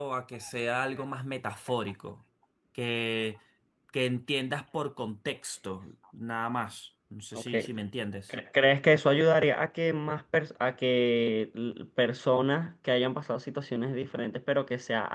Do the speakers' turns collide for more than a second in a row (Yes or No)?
No